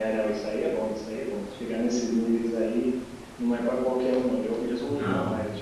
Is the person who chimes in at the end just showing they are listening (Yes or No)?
Yes